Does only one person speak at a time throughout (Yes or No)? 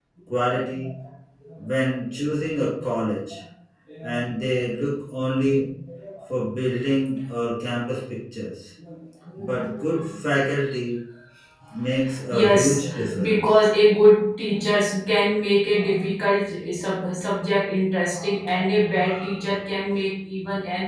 No